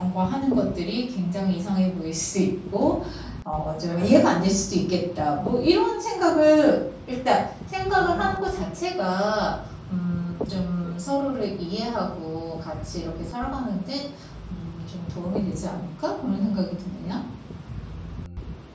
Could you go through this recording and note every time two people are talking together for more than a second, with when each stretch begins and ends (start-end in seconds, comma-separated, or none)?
none